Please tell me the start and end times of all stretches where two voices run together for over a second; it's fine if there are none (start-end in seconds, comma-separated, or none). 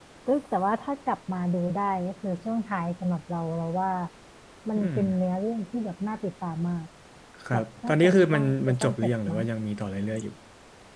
7.5-9.4